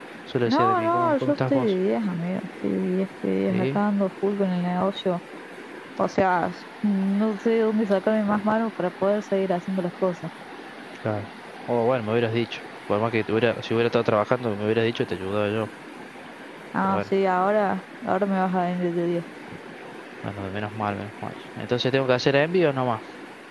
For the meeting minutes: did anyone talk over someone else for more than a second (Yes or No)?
Yes